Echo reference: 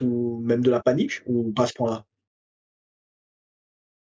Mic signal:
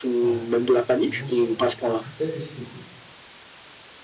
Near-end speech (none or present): present